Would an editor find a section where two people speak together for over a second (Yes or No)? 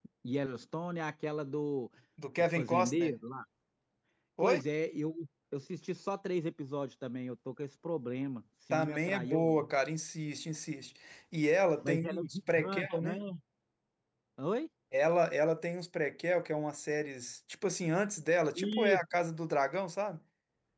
Yes